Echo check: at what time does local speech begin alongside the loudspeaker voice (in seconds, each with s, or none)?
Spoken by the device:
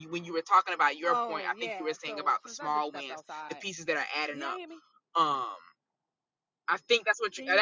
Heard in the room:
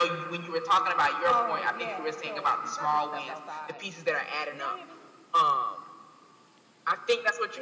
none